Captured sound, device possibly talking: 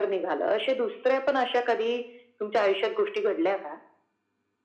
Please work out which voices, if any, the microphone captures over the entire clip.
echo only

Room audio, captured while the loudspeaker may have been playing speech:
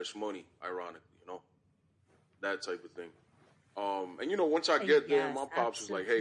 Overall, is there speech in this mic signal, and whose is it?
both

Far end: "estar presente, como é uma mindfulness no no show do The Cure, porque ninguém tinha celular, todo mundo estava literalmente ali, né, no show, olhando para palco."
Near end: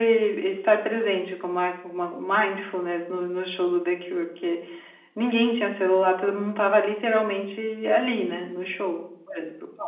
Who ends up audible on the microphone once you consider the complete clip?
echo only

